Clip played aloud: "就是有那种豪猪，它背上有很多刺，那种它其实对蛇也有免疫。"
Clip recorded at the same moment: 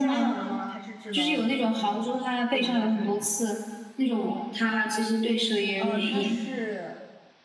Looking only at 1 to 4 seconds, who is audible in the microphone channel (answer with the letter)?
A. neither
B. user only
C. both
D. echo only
C